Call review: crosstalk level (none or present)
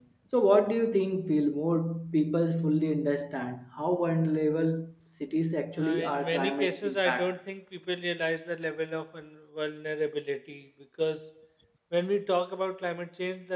present